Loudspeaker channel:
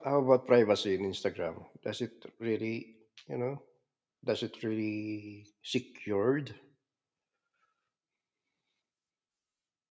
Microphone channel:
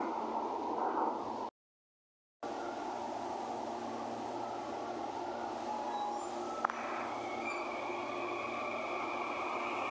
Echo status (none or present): none